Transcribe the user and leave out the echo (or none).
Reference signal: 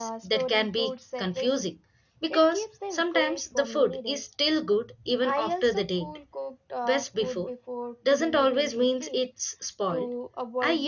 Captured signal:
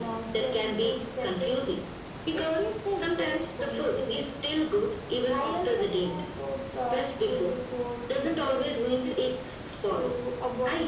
none